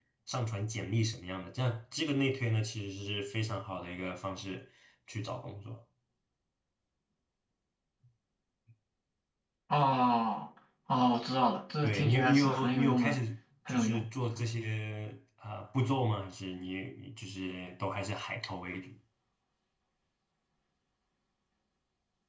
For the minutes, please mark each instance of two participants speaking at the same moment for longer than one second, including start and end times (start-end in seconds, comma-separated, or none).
11.8-13.2